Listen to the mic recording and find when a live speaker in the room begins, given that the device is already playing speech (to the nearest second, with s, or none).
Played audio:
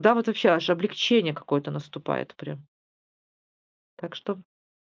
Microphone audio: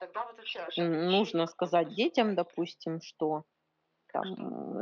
1 s